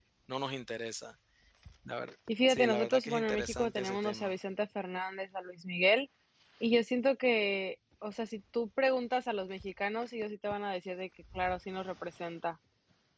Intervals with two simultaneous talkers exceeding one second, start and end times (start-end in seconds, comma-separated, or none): 2.5-4.3